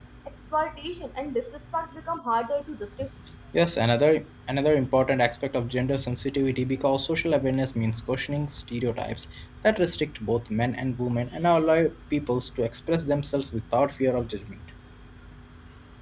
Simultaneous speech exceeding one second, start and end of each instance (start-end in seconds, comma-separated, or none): none